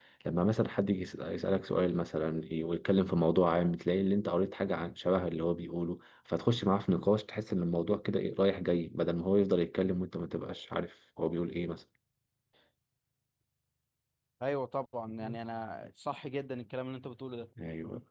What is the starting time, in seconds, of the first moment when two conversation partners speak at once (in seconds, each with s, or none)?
none